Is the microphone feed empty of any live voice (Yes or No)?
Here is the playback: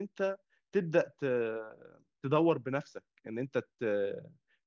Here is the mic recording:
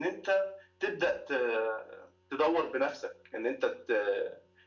Yes